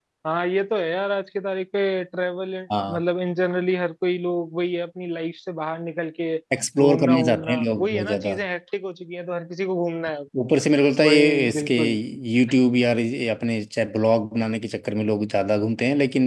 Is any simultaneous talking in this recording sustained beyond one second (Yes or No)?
Yes